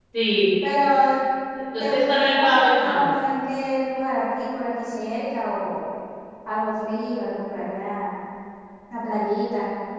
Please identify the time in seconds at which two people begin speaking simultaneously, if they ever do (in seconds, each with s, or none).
1.8 s